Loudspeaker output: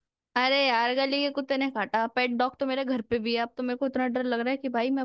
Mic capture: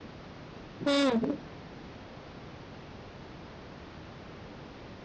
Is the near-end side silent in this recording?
No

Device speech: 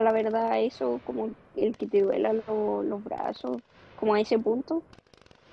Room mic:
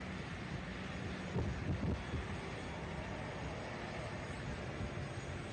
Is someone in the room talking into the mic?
No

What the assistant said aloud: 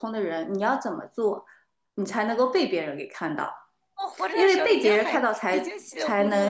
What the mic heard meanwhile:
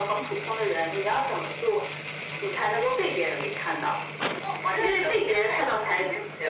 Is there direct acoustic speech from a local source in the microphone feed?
No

